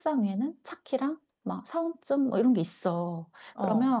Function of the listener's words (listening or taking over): listening